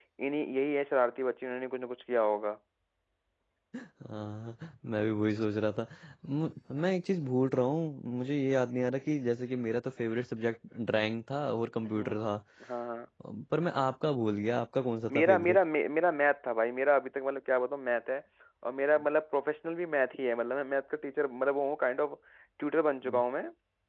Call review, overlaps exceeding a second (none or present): none